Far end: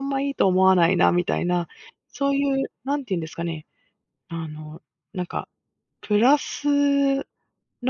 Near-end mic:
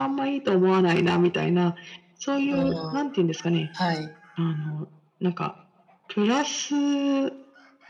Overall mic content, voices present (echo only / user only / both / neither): both